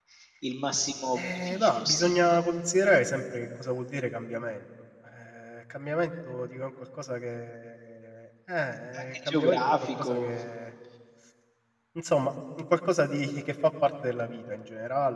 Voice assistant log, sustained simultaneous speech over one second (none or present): present